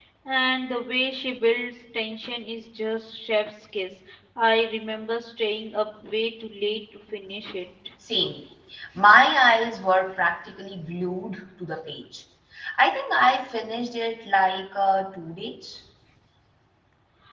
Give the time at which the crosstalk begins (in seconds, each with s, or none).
none